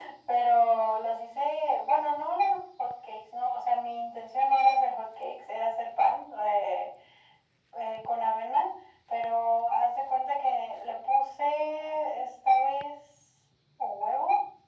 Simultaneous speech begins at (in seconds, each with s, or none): none